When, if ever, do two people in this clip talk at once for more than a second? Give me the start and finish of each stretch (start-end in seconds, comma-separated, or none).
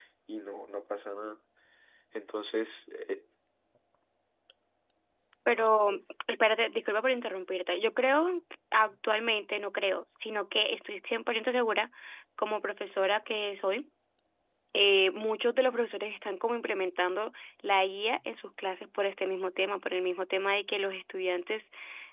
none